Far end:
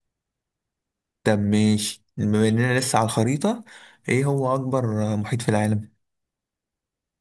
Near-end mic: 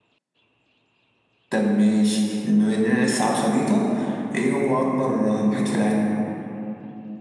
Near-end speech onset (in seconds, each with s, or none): none